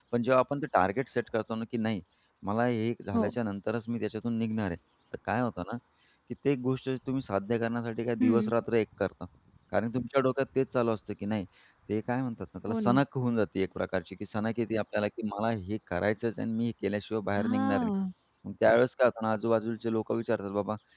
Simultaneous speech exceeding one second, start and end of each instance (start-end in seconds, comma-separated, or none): none